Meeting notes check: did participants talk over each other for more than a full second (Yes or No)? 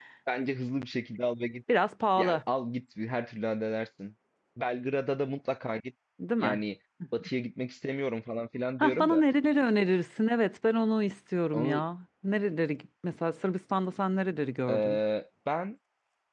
No